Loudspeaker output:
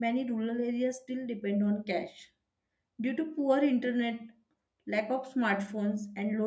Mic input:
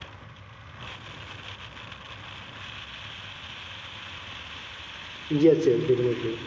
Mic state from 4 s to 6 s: user only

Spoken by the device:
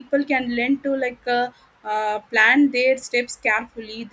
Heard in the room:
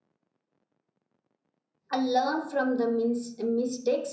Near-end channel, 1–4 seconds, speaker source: user only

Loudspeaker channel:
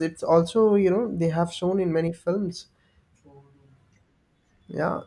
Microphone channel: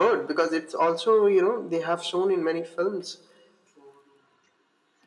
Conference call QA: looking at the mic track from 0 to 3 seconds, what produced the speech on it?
echo only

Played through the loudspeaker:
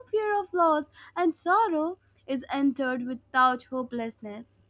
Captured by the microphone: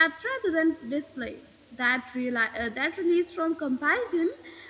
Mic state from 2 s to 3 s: user only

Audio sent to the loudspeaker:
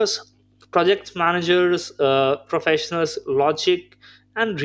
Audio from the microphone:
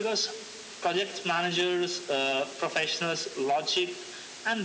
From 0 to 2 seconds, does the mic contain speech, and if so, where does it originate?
echo only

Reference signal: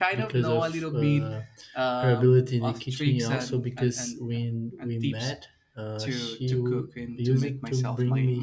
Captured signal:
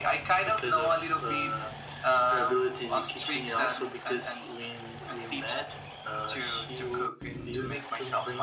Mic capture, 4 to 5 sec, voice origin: echo only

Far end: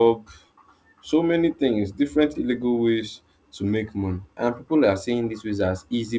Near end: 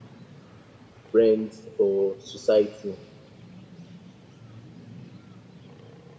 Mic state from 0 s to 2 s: user only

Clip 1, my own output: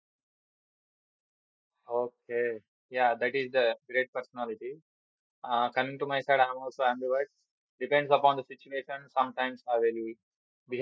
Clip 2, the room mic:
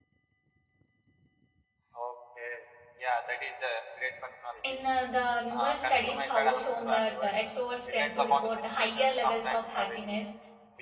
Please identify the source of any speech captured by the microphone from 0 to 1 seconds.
neither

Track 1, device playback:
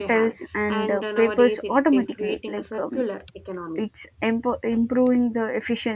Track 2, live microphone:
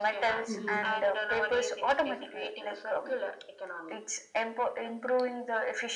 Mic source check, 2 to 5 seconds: echo only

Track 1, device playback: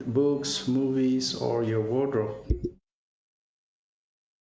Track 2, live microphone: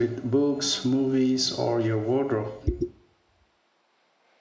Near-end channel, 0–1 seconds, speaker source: echo only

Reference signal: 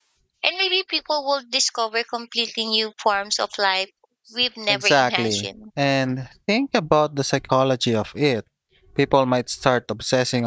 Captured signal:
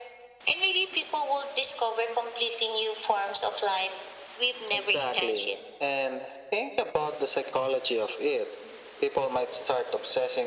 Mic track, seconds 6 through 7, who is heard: echo only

